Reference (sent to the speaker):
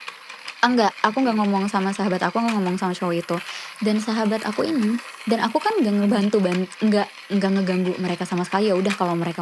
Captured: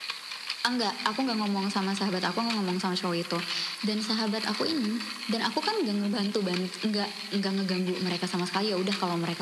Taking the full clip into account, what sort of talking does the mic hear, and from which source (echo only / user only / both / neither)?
echo only